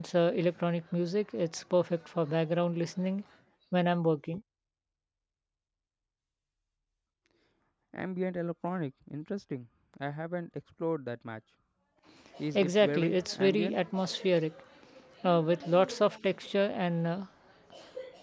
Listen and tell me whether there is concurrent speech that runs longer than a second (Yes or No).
Yes